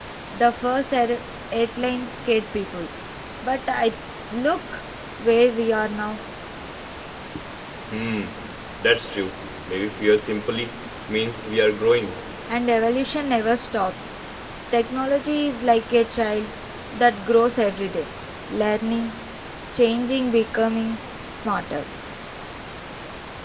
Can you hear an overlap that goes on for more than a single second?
No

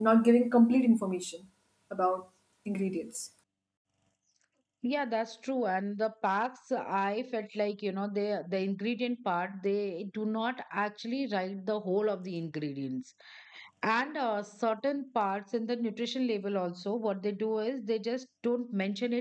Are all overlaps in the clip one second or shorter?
Yes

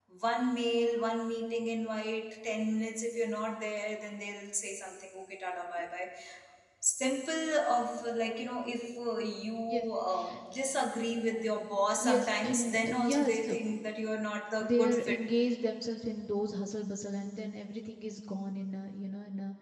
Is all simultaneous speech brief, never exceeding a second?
No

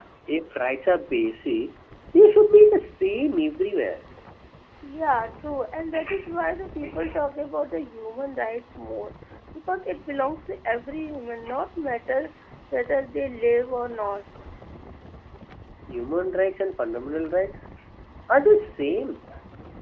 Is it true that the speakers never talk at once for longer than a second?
Yes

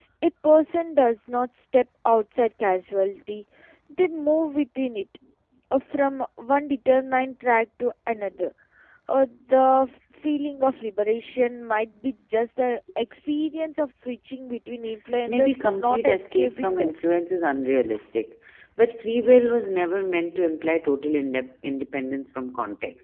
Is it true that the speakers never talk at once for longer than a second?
No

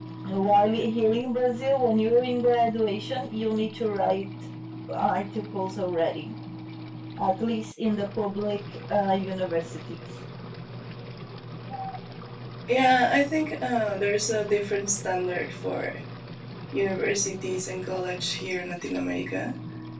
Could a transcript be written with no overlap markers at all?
Yes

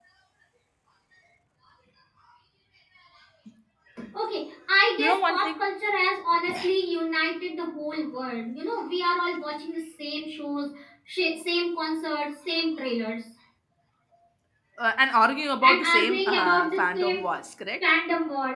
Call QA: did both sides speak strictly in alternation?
No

